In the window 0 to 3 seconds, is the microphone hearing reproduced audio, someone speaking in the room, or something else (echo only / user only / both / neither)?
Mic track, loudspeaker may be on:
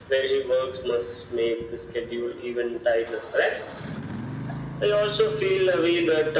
echo only